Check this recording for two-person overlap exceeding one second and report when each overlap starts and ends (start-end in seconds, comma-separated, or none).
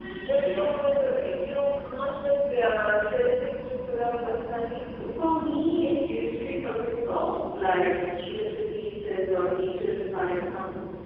none